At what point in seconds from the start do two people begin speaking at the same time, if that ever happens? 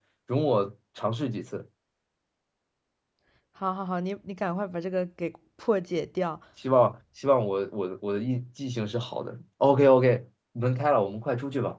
none

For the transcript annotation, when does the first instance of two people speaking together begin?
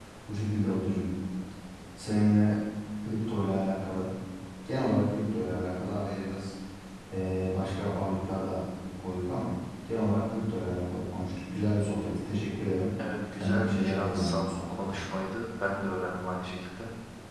13 s

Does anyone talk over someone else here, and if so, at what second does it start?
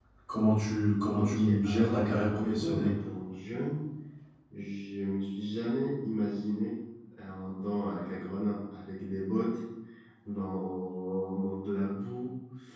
1 s

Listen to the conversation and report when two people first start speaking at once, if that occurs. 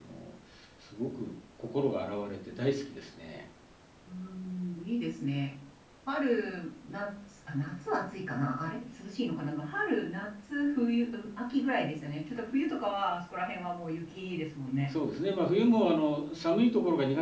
none

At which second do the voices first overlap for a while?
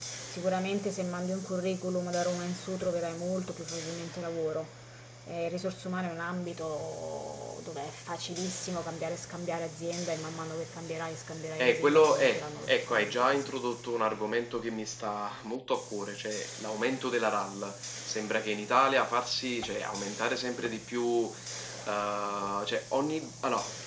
12 s

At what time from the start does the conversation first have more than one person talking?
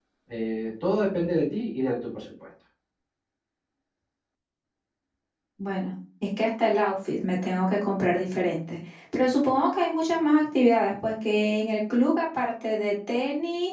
none

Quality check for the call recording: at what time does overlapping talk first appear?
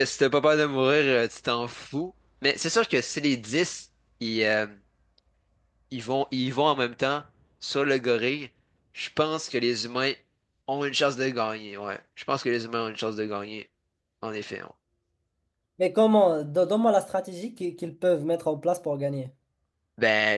none

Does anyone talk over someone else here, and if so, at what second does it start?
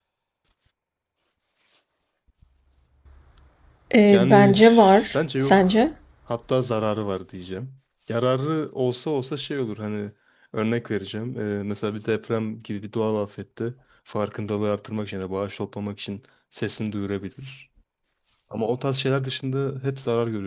4 s

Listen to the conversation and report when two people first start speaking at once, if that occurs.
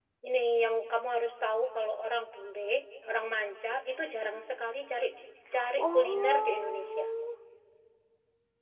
6 s

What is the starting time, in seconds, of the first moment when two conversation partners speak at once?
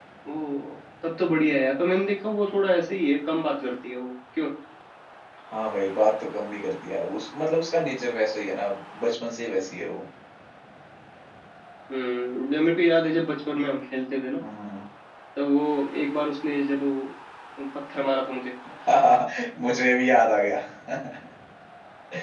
none

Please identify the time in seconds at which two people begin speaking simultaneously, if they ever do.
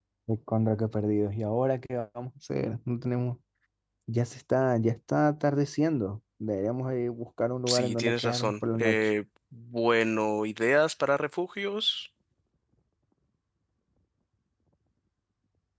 8 s

